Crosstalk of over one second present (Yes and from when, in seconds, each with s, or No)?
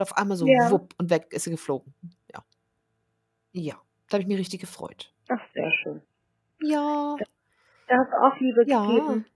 No